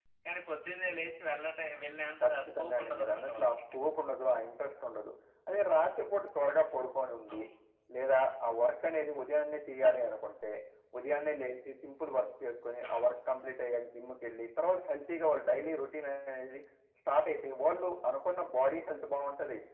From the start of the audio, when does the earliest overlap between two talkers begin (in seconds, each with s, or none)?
2.2 s